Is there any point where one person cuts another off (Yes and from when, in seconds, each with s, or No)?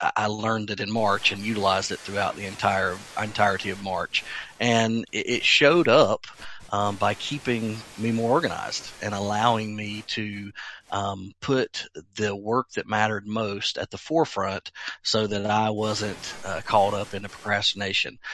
No